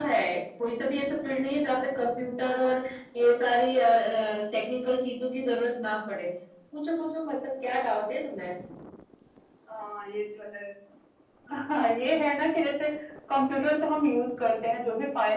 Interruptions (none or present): none